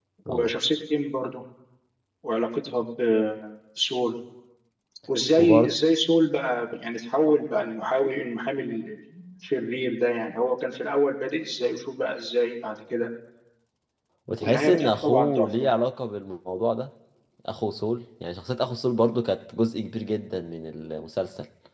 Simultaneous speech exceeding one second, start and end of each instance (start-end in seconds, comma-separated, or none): 14.4-15.7